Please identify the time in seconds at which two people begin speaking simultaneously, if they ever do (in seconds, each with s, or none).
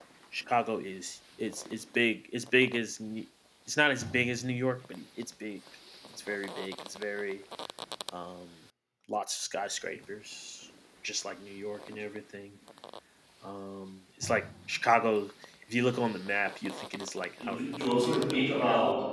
17.4 s